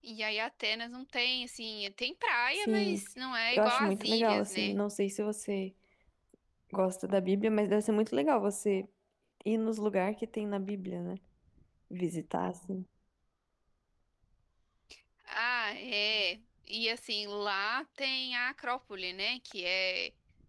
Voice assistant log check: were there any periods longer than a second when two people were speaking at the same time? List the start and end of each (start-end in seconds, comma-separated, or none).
3.5-4.8